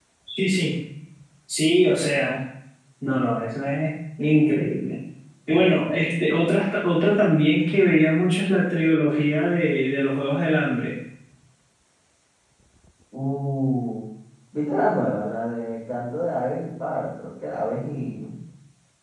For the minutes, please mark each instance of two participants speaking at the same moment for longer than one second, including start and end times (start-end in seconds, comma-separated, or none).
none